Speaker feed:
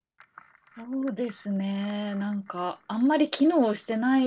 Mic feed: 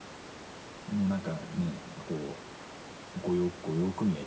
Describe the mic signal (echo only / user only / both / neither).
user only